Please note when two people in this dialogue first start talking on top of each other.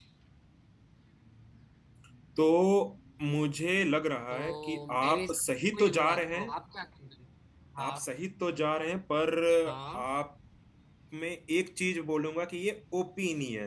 4.3 s

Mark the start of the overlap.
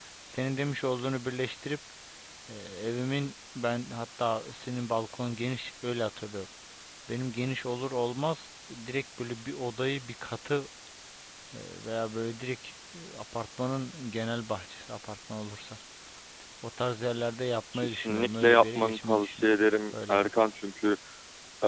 17.7 s

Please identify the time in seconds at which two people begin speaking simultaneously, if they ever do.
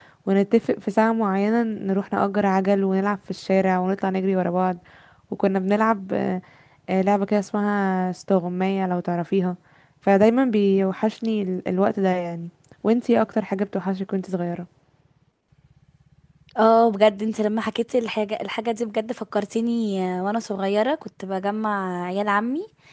none

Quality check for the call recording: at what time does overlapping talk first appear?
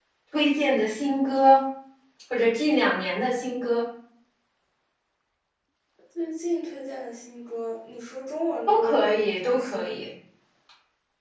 8.7 s

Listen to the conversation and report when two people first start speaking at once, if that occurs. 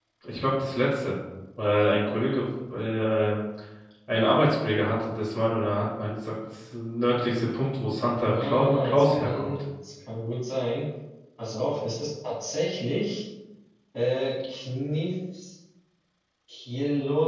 8.3 s

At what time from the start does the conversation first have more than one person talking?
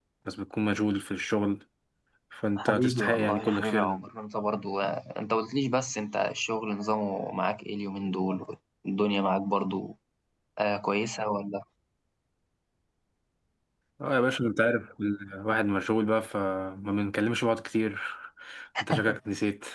2.6 s

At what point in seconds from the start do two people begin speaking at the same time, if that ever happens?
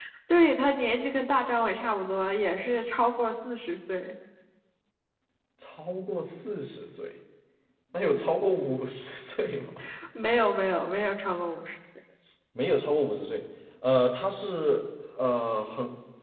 none

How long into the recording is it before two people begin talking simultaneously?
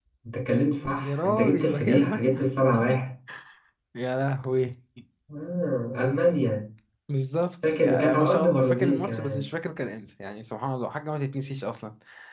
1.0 s

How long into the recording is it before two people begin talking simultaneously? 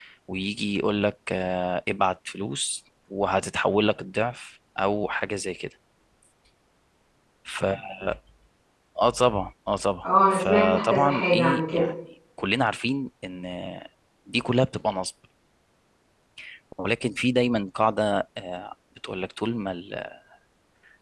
10.0 s

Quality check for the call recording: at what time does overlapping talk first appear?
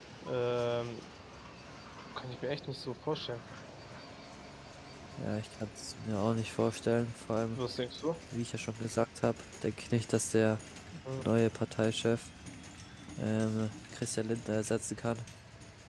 none

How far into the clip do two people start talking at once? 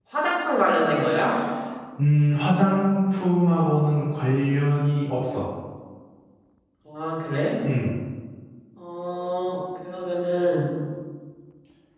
none

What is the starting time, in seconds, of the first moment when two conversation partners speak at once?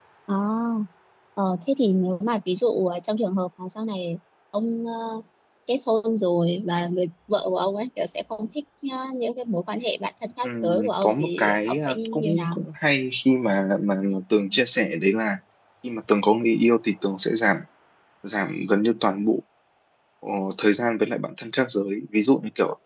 10.4 s

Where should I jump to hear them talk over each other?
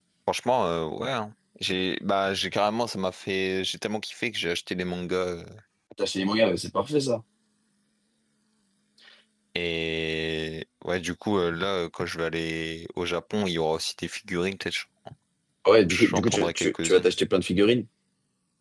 15.9 s

